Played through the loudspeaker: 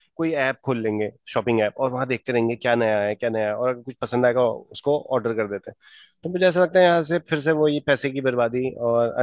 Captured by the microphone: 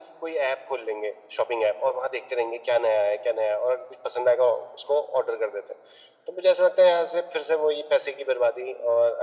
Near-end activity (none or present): none